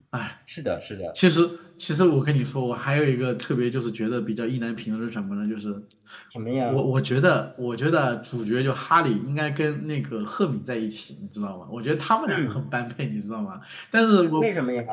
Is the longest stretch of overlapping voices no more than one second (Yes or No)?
Yes